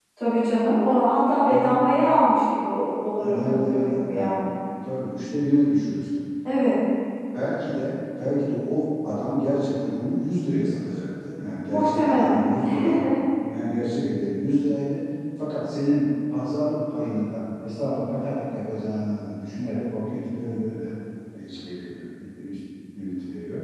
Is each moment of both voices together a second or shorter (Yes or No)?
No